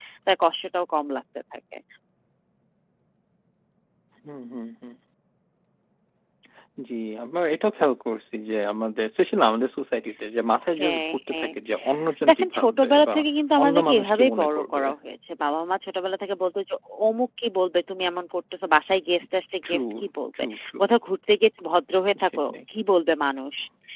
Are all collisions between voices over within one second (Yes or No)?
No